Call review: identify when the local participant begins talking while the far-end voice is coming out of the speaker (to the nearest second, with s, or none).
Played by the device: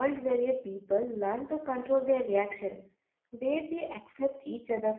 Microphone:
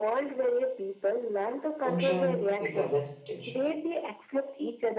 2 s